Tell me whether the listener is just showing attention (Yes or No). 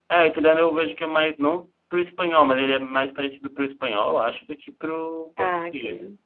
Yes